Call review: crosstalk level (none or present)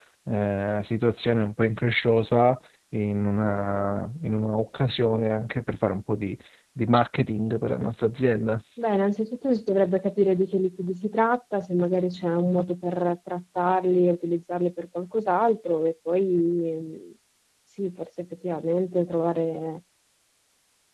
none